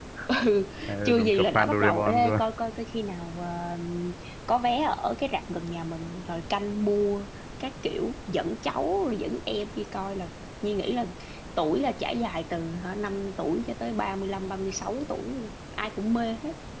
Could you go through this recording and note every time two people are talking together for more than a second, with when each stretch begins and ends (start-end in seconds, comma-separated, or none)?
1.0-2.4